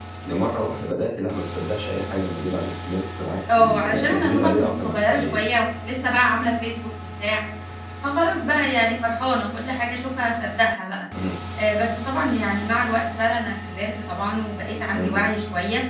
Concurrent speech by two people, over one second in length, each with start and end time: 3.5-5.4

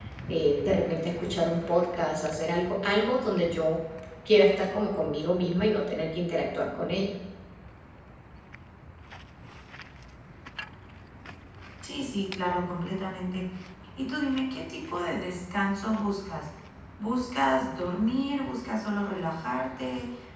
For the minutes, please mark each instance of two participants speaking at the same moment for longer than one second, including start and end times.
none

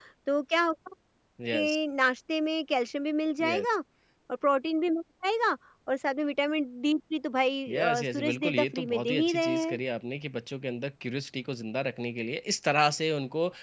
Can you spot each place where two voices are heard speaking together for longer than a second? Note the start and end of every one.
7.7-9.8

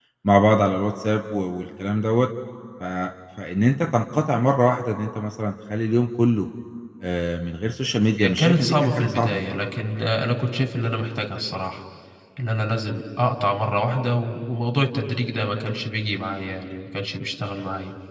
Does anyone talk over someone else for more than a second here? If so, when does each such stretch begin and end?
8.2-9.4

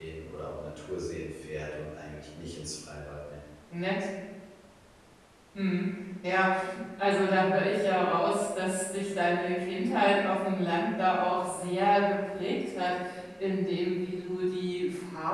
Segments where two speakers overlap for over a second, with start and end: none

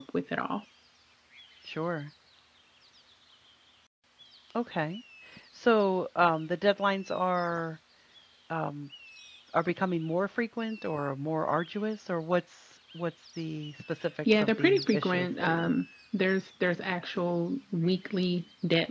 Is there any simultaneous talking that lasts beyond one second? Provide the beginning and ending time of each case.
14.3-15.7

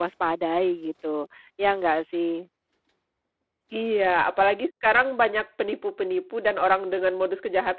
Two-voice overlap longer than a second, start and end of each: none

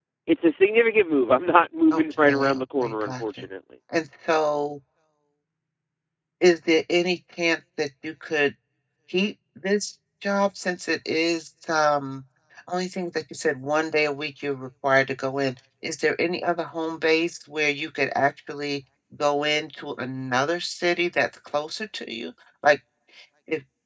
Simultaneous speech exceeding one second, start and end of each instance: 1.9-3.2

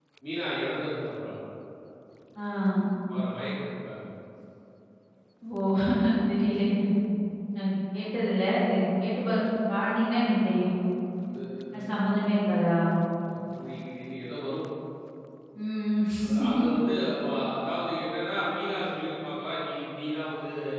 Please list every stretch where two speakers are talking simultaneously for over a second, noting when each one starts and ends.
none

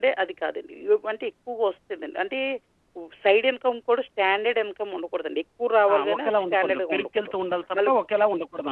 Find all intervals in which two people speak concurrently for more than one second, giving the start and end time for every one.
5.9-7.3

